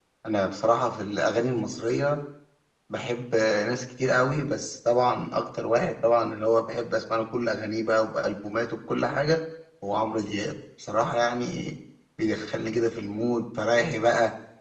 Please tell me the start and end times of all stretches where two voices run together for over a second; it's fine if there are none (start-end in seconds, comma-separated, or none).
none